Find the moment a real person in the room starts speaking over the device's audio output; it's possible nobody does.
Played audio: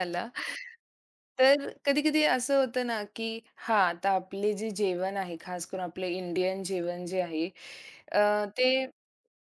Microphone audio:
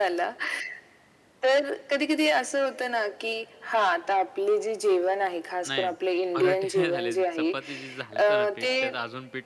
5.7 s

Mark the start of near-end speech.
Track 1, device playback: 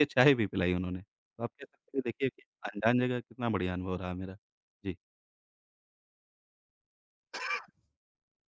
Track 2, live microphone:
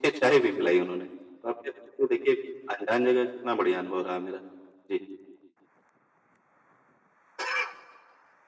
none

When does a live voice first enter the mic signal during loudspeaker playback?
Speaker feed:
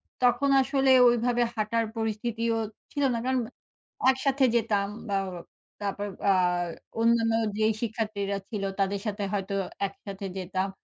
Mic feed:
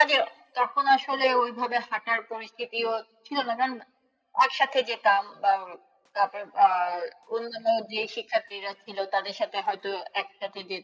none

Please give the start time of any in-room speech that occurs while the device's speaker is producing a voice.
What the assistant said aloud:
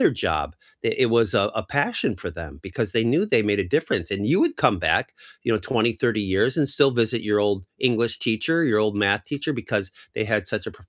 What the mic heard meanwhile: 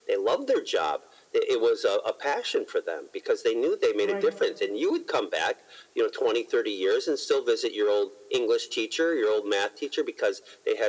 4.0 s

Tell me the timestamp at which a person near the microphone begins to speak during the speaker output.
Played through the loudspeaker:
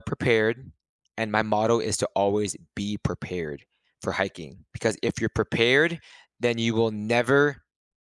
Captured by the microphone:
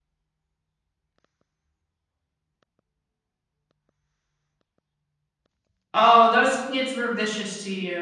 5.9 s

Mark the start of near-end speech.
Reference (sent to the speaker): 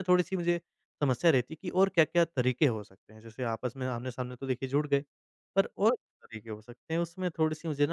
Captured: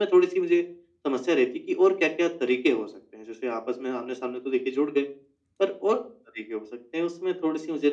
none

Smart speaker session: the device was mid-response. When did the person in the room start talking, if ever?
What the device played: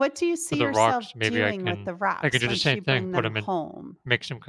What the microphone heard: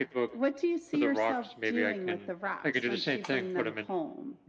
none

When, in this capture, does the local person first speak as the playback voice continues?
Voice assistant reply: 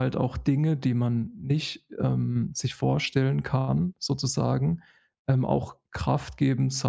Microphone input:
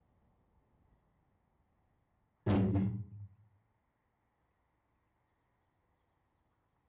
2.5 s

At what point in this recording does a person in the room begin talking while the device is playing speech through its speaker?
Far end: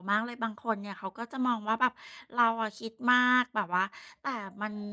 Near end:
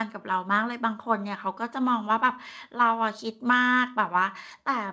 none

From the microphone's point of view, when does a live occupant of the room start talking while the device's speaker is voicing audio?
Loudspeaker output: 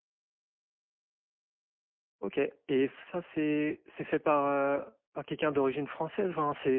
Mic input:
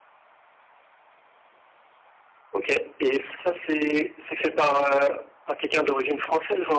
none

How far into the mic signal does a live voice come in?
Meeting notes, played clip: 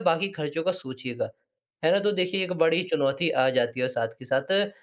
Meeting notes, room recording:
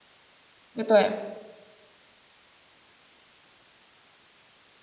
0.8 s

